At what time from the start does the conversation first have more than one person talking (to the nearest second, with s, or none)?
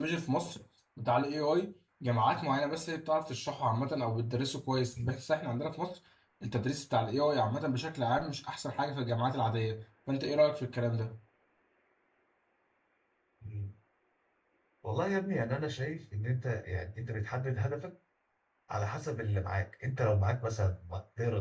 none